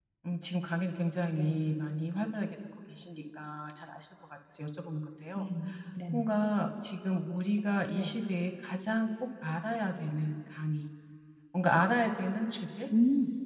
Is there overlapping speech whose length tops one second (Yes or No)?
No